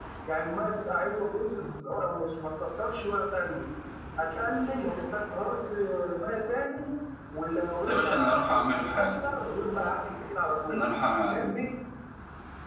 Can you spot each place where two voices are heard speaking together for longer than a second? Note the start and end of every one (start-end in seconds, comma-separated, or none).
7.9-9.1